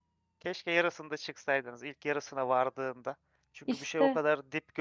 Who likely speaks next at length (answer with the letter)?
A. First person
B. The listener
A